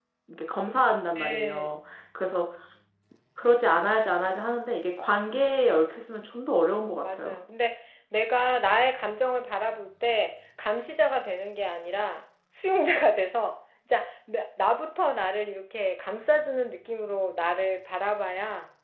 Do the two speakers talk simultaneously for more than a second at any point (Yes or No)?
No